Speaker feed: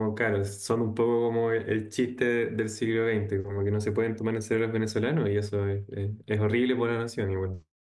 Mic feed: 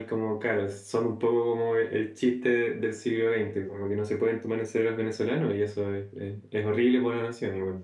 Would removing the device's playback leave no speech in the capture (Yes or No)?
Yes